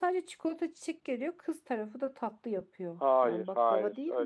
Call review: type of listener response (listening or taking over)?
taking over